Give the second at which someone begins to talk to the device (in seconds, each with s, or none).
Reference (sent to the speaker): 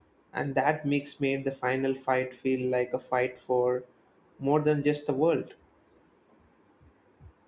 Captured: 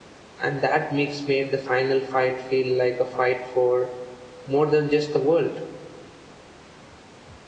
none